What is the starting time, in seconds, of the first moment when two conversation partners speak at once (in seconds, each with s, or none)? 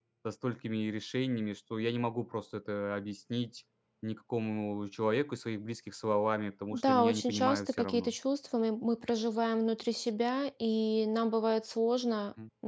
6.7 s